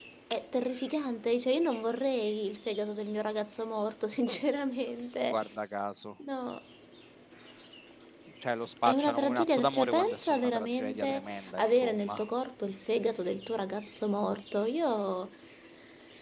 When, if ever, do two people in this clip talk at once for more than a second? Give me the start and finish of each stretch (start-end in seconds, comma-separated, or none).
8.8-12.2